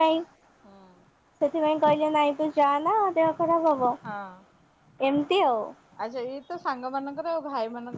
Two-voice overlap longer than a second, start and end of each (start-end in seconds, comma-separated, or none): none